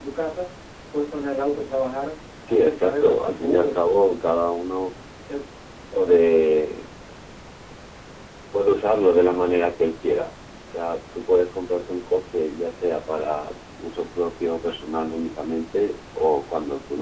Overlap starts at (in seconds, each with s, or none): 2.4 s